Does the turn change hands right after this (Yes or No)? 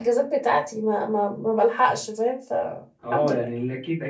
Yes